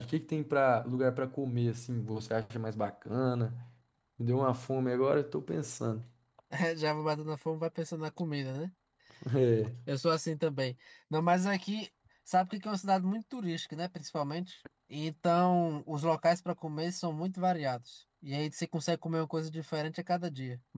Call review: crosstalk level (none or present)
none